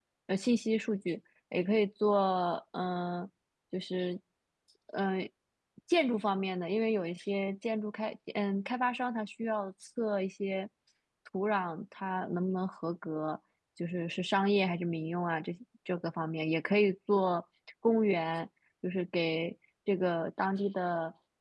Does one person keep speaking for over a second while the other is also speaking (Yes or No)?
No